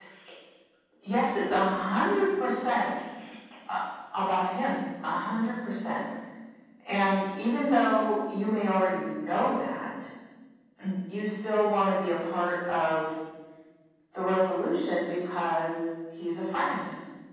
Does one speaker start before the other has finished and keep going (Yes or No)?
No